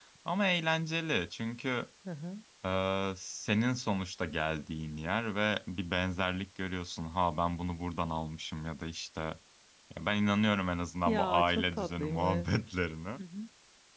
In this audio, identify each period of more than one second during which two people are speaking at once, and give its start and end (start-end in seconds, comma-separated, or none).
11.1-12.5